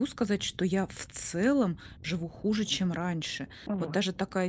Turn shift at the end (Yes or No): No